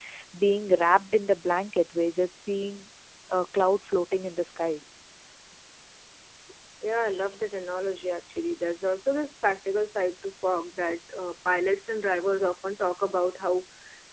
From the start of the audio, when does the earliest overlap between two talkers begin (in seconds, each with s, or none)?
none